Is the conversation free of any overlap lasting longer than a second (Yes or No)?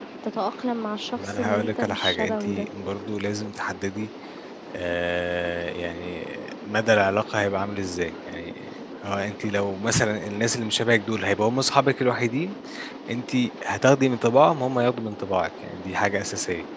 No